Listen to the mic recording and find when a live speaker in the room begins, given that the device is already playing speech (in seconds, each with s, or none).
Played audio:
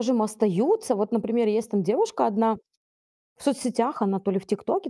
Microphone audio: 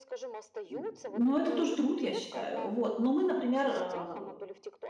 0.7 s